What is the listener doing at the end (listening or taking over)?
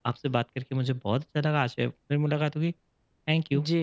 taking over